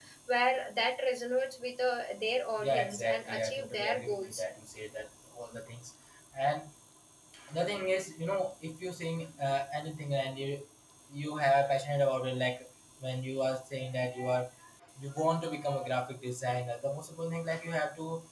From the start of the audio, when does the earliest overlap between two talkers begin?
2.6 s

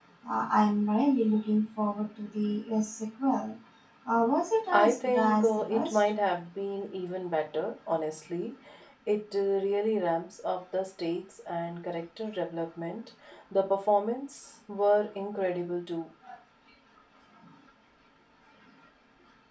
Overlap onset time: 4.7 s

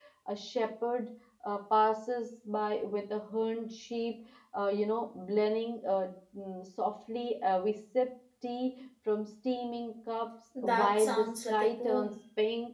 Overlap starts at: 10.6 s

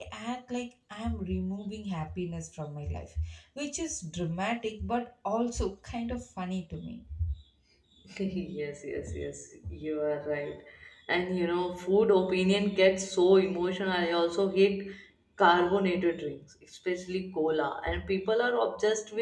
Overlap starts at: none

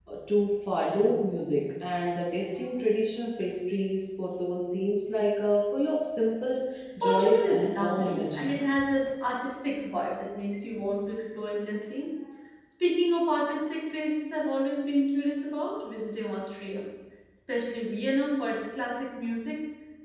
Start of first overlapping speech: 7.0 s

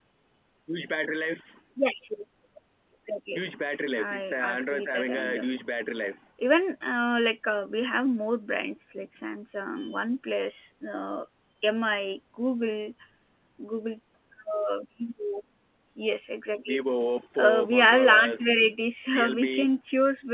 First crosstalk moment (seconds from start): 4.0 s

